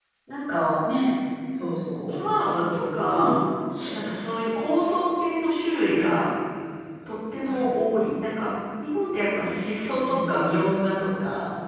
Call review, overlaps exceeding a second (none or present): none